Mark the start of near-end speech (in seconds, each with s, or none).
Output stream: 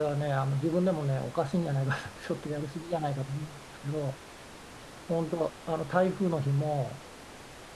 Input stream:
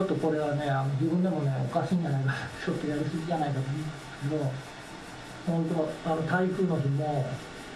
none